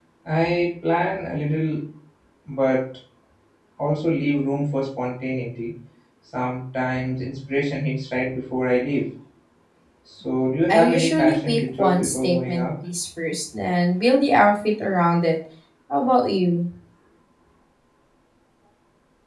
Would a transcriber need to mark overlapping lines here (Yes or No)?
Yes